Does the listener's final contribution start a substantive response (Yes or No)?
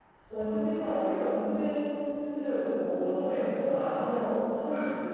No